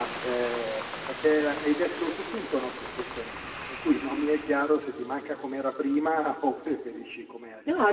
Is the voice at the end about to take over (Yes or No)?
Yes